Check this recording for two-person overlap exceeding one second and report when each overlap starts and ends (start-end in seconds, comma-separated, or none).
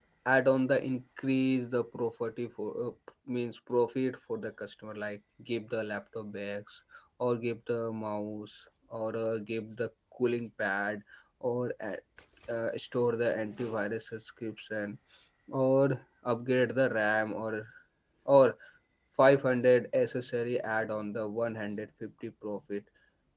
none